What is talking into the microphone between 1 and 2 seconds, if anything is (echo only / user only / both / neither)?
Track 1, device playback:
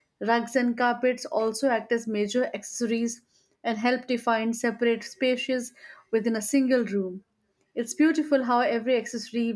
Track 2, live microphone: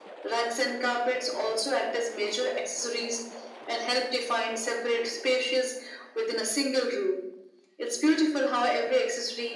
echo only